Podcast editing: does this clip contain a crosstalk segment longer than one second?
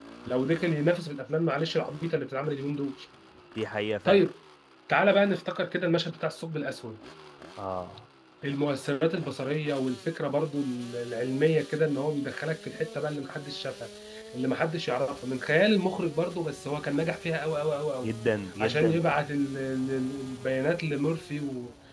No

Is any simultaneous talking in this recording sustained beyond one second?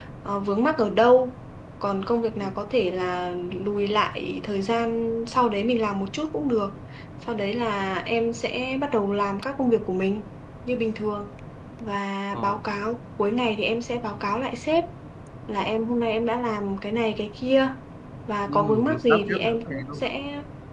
Yes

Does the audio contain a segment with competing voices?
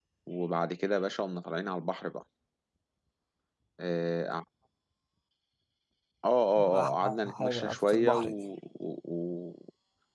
Yes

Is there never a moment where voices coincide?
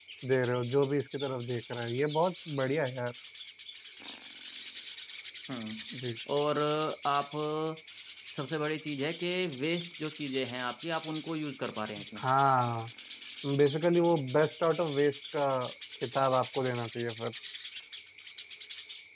Yes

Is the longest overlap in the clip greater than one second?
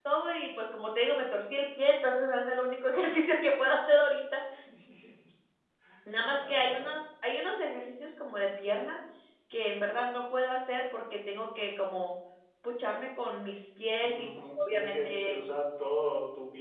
Yes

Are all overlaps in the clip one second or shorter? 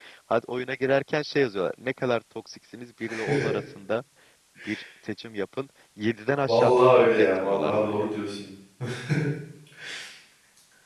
No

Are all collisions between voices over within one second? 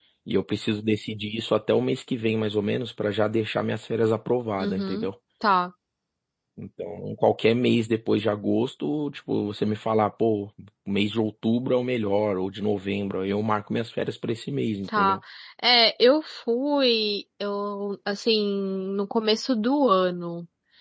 Yes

